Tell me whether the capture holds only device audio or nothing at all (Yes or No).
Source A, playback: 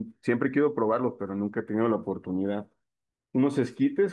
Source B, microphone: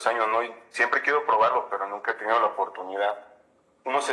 Yes